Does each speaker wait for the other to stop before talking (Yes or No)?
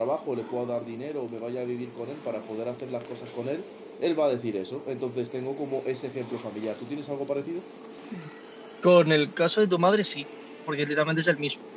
Yes